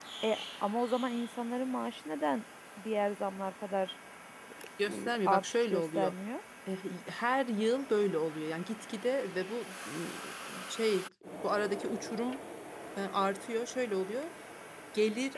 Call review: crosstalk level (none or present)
present